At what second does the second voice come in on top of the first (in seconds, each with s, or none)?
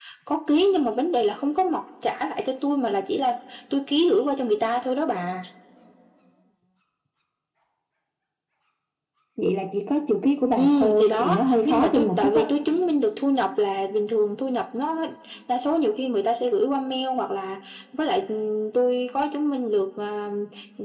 10.6 s